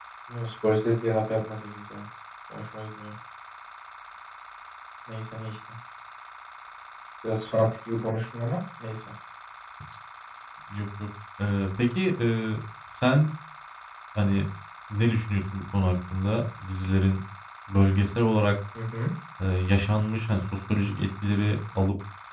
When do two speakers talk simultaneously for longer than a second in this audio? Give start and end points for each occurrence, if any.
none

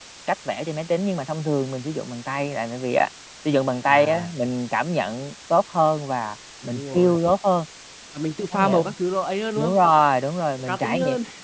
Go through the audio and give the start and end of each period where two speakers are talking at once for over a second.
none

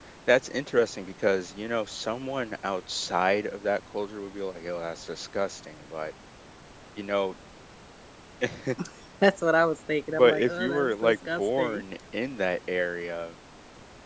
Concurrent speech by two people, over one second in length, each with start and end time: 10.1-11.8

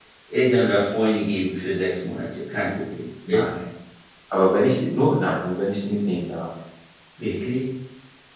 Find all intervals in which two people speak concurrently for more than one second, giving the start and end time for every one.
none

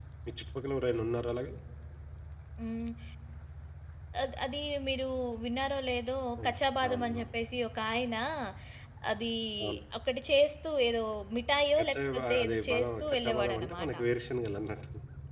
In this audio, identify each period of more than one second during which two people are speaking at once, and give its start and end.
11.8-13.9

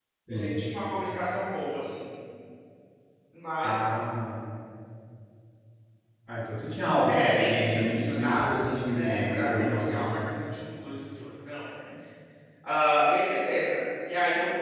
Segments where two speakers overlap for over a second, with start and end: 7.1-10.2

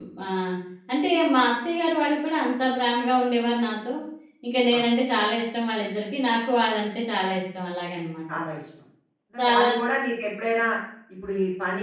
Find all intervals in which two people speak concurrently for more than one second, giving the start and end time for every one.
none

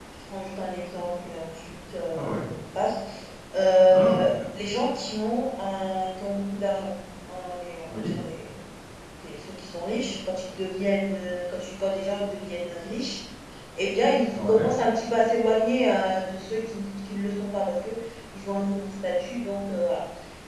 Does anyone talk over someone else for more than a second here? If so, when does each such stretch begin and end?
none

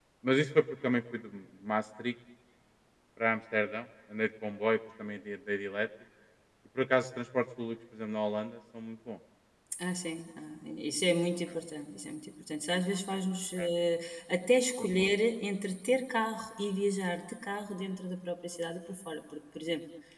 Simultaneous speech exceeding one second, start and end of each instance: none

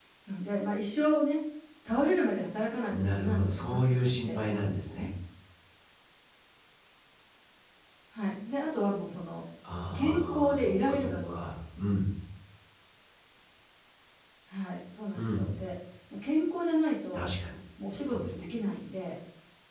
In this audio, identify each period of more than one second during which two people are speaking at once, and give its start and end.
2.9-5.1, 9.9-11.3

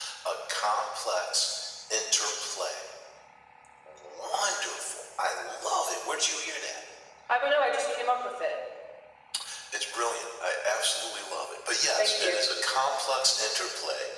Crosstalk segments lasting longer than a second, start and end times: none

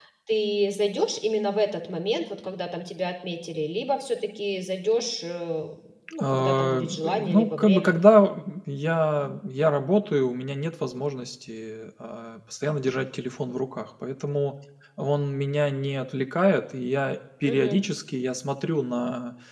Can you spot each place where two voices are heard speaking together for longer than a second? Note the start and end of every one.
6.2-7.9

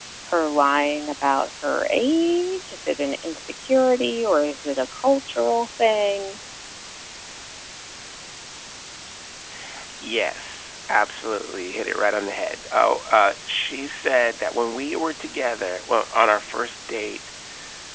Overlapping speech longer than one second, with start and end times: none

